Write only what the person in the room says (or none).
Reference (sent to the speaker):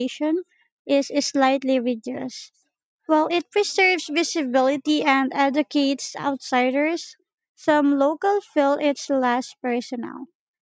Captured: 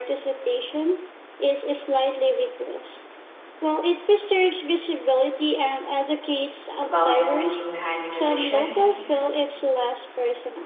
about the meaning behind the tradition,